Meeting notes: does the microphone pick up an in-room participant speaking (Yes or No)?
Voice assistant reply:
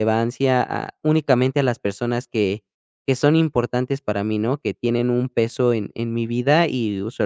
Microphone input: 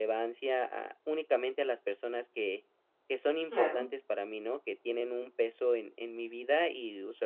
Yes